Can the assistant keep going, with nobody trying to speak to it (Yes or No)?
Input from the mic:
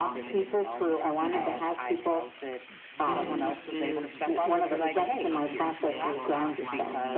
No